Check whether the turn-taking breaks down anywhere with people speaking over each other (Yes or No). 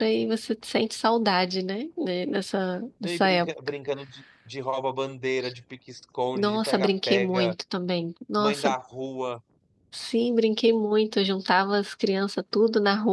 Yes